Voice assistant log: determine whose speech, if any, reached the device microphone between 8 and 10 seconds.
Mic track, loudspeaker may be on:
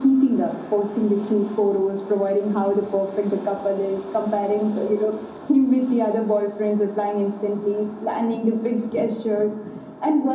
echo only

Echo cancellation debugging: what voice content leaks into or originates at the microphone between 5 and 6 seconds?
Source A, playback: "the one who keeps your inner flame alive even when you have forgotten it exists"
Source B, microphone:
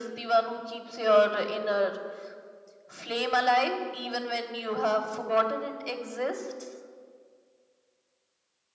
echo only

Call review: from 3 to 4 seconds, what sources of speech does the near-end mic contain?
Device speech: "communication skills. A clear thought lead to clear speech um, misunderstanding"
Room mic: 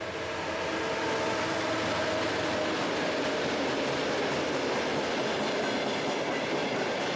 neither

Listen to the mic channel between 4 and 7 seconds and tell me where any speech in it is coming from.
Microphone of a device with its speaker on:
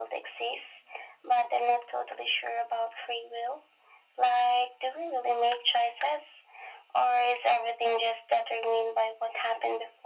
echo only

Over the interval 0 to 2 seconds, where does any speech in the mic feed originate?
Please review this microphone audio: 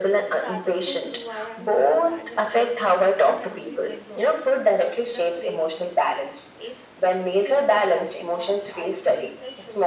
both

